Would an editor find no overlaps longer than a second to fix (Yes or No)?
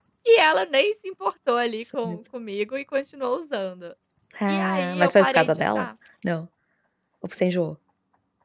No